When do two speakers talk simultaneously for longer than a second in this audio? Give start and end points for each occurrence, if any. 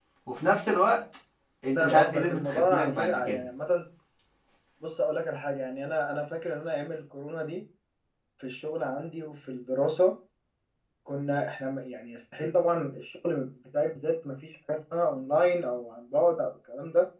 1.8-3.4

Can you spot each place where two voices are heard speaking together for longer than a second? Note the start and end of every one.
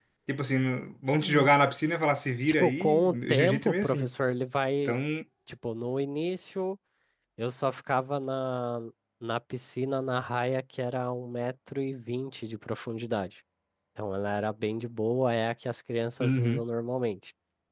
2.5-4.1

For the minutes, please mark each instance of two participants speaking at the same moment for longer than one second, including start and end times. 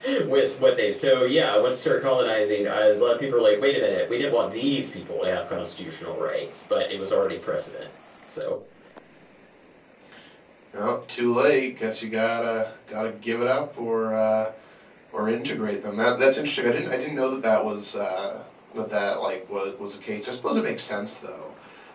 none

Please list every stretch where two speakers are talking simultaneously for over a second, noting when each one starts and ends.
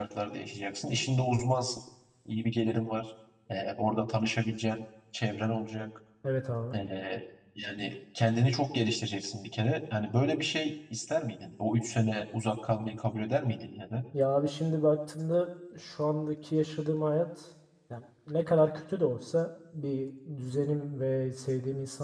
none

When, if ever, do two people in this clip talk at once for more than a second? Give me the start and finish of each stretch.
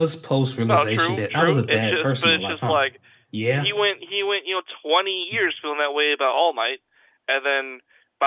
0.7-2.8

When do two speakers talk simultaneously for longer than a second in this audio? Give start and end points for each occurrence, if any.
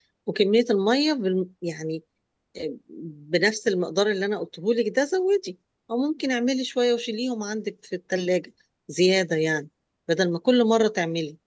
none

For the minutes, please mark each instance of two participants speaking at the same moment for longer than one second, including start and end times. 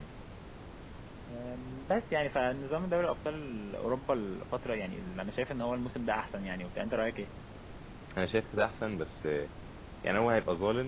none

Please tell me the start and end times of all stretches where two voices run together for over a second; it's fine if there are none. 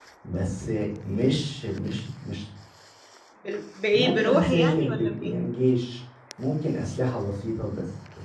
3.9-5.4

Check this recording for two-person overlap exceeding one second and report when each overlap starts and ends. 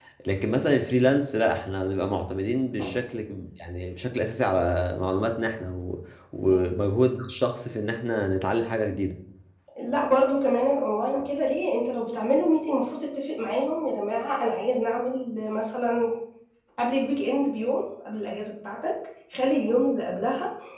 none

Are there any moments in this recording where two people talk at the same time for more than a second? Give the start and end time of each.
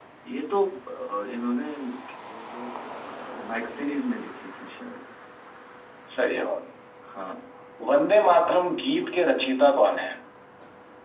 none

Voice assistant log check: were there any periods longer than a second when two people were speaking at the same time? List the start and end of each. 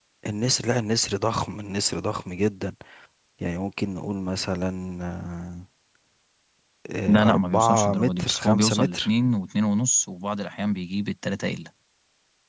7.1-9.1

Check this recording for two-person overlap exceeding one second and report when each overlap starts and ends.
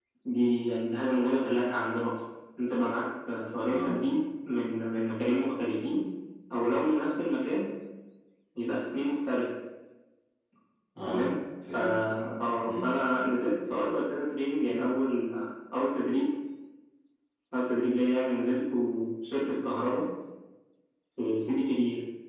none

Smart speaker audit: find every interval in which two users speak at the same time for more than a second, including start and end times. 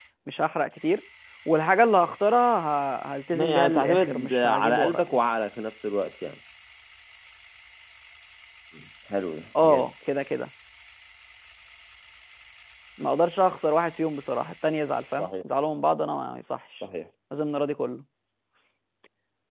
3.3-5.1

